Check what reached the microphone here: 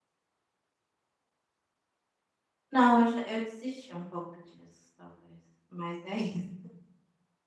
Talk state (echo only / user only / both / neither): user only